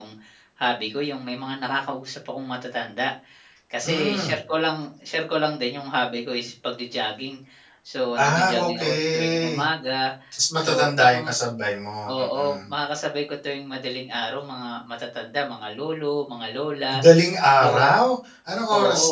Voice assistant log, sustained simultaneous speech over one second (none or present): present